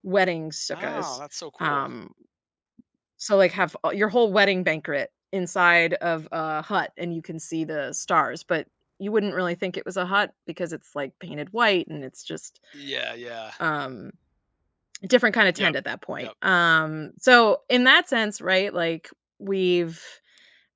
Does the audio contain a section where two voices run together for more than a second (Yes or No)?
No